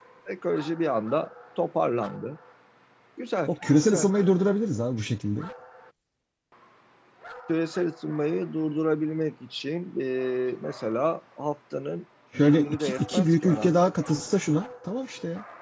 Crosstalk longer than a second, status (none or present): present